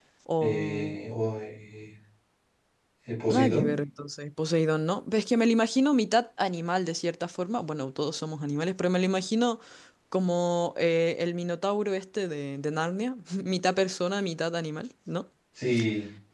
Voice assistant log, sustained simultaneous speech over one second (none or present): none